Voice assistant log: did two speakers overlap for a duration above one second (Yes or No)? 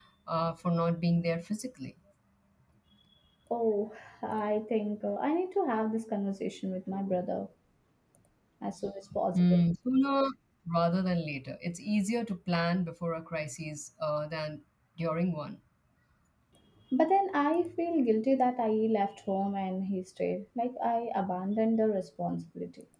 No